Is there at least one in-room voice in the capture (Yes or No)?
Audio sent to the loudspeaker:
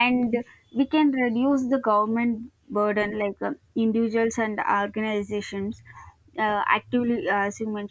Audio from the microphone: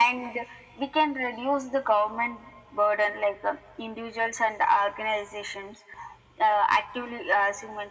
No